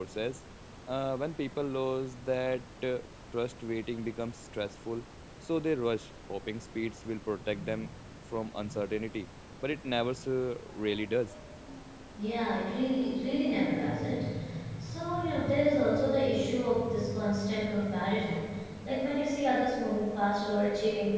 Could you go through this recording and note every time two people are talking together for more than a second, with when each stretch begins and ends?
none

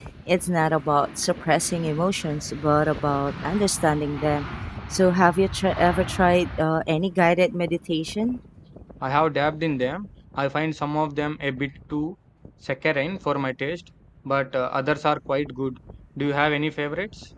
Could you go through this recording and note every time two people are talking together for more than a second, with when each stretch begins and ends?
none

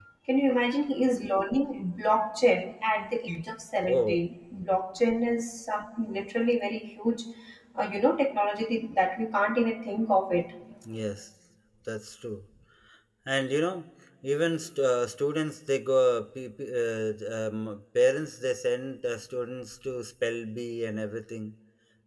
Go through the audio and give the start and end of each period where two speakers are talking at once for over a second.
none

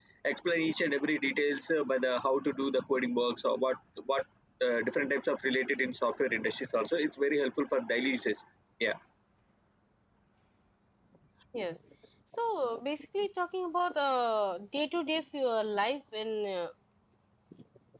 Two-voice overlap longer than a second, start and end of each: none

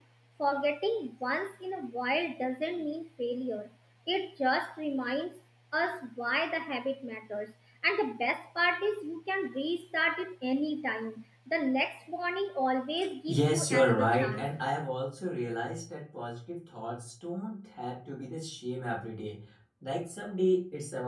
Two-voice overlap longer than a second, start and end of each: 13.3-14.5

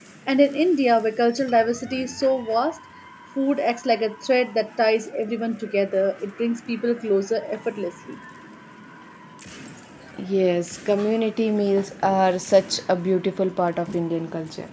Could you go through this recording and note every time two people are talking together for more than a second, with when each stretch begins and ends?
none

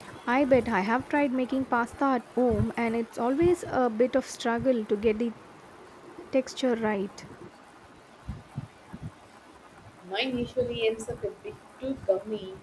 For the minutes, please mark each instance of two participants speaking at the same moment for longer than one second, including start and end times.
none

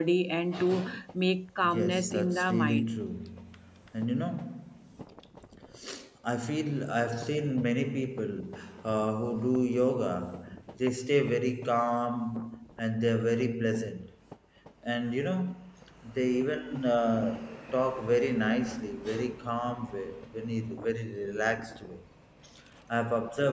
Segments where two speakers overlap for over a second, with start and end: 1.6-3.0

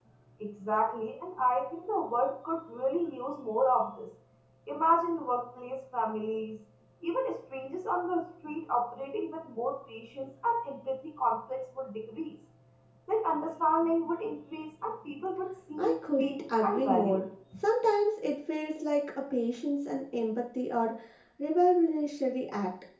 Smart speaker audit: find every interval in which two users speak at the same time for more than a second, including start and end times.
15.8-17.2

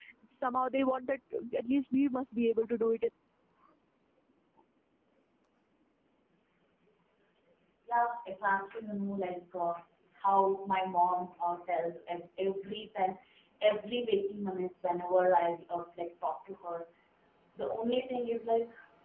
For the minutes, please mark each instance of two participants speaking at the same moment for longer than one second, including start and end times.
none

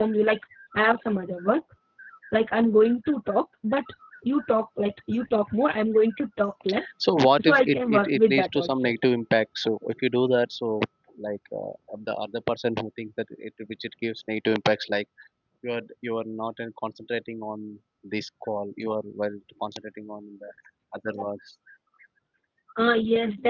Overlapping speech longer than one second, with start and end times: 7.4-8.9

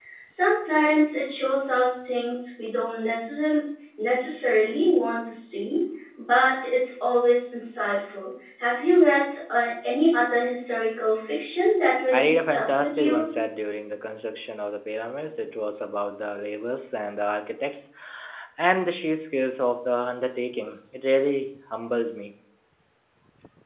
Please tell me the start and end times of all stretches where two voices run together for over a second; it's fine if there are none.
12.1-13.3

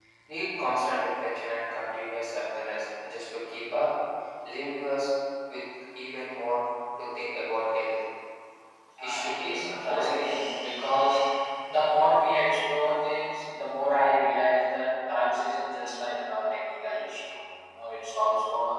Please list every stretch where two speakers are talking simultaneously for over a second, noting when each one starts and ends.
9.0-10.2

